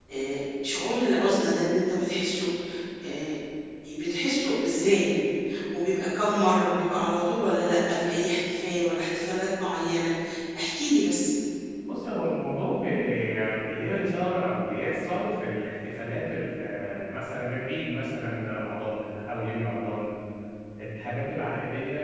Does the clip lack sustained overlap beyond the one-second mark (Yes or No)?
Yes